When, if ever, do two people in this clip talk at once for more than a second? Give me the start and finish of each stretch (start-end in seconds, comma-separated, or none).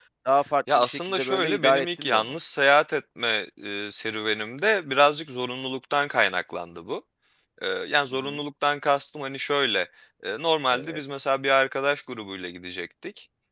0.8-2.3